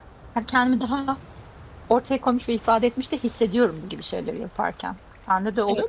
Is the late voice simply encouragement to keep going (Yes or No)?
No